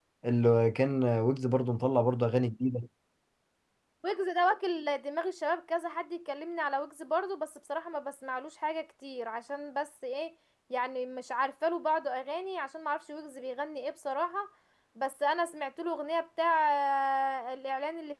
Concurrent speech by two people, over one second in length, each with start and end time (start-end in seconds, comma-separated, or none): none